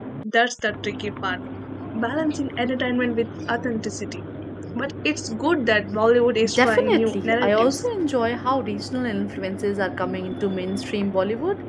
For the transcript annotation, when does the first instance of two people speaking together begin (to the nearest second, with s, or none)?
6 s